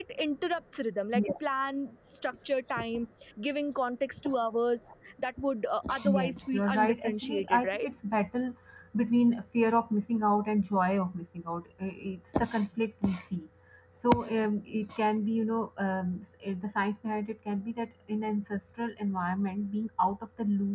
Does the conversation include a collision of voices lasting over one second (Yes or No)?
Yes